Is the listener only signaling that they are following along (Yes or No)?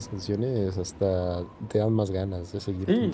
No